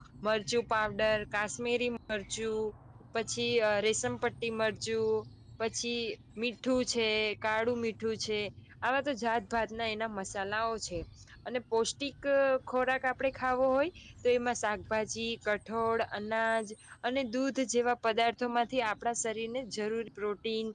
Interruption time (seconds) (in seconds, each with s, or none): none